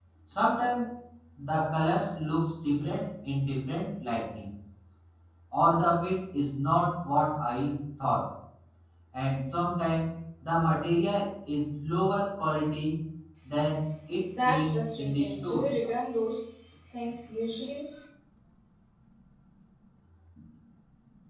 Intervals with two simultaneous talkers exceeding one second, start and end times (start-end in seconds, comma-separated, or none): 14.4-15.7